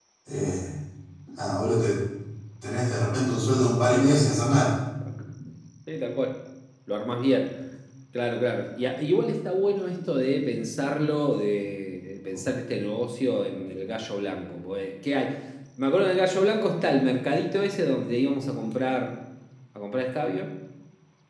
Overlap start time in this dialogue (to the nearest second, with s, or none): none